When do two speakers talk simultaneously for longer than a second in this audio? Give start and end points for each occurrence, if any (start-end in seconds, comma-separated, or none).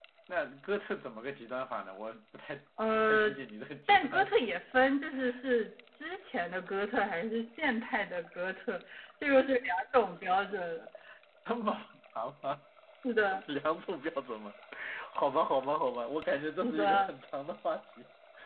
none